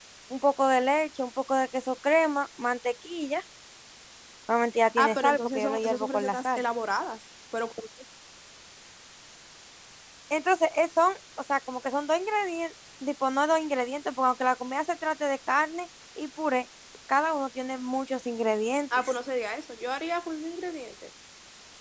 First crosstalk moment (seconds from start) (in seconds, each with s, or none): 5.0 s